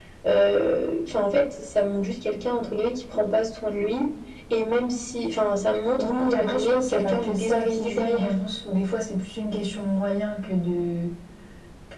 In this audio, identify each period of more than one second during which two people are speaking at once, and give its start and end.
6.0-8.3

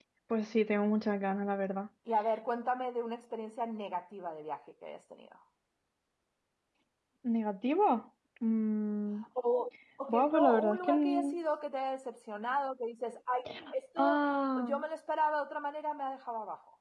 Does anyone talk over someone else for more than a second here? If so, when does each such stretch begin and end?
10.1-11.4

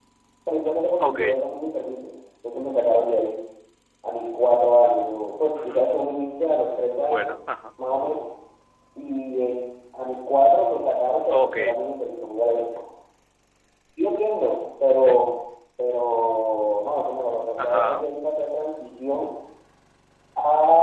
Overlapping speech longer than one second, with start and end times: none

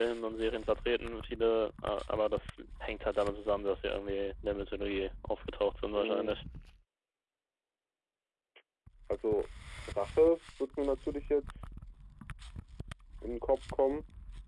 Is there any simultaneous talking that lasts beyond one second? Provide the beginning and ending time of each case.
none

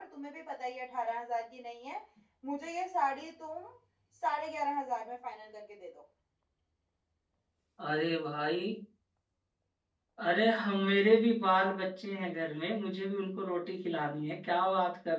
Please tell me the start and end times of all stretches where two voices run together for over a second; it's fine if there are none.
none

